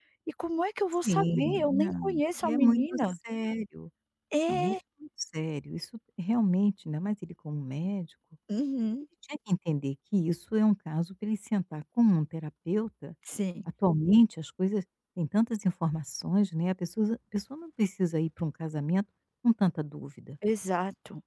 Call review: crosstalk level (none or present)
present